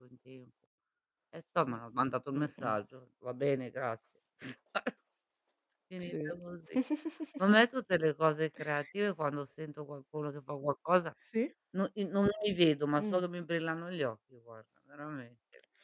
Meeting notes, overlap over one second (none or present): none